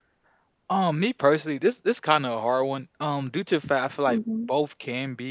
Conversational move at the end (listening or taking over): listening